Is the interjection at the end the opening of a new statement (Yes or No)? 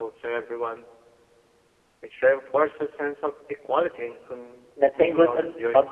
Yes